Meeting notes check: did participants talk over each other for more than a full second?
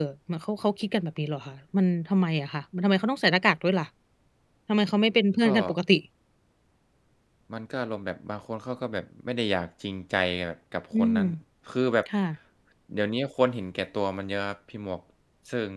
No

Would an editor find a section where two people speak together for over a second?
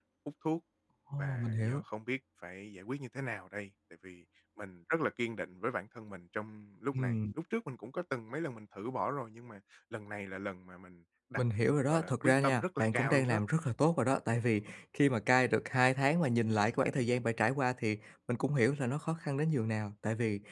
Yes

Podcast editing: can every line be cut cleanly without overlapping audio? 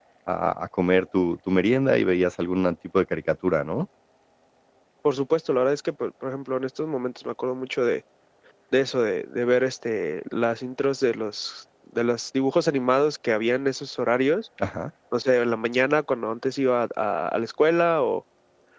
Yes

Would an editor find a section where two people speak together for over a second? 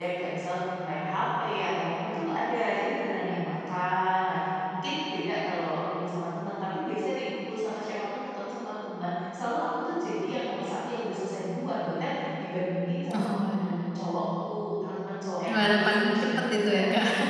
Yes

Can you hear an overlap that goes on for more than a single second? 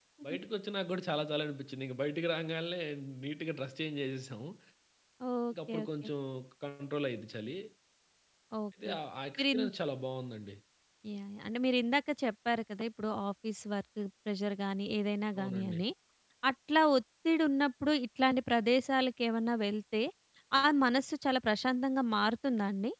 No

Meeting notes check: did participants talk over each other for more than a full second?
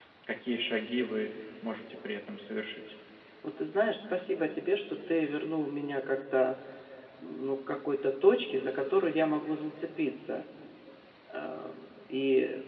No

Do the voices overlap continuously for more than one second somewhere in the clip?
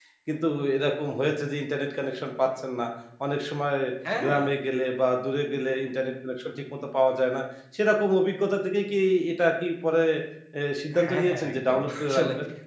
Yes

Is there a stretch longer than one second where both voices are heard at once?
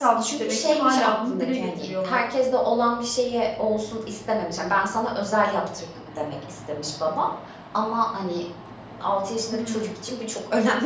Yes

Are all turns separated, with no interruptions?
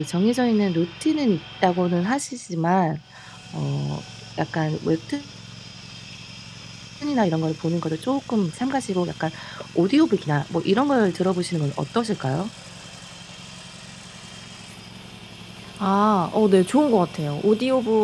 Yes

